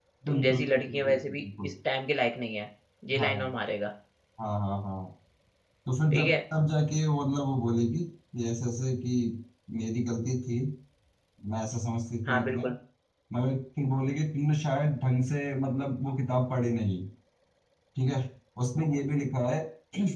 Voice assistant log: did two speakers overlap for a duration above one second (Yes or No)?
Yes